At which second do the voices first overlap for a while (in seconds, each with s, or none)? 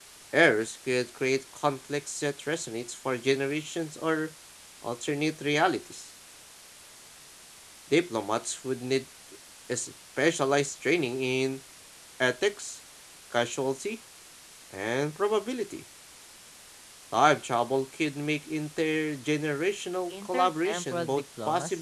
20.1 s